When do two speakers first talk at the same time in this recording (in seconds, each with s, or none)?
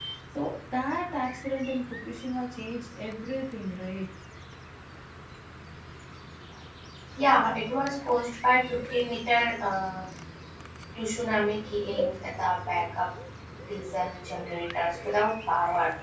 none